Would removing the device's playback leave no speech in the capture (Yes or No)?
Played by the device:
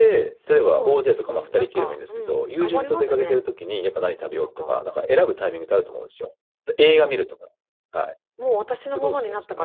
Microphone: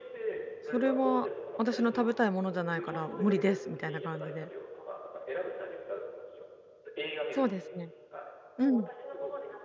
No